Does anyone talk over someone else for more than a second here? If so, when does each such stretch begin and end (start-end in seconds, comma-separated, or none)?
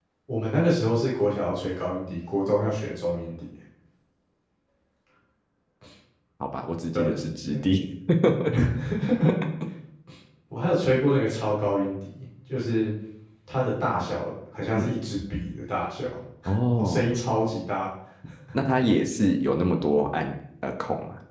none